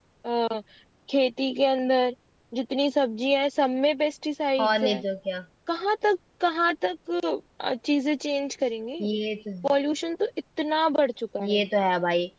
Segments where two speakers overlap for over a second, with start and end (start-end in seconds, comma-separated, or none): none